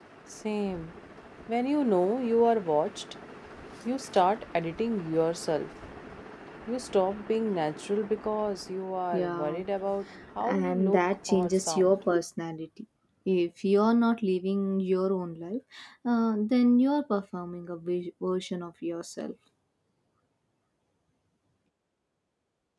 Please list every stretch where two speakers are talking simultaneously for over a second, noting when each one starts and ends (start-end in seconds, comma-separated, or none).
10.4-11.9